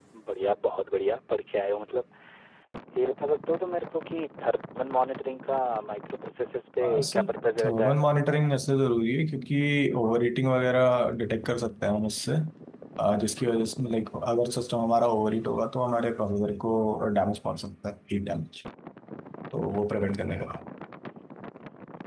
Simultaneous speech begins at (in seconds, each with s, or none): 6.8 s